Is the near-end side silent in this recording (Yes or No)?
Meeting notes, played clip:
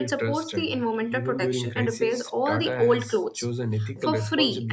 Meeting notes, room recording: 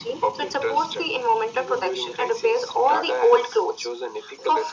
Yes